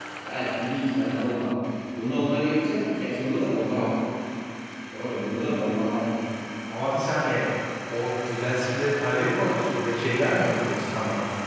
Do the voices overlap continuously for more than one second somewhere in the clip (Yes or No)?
No